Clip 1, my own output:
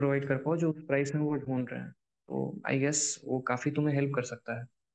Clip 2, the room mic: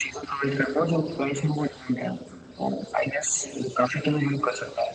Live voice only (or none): none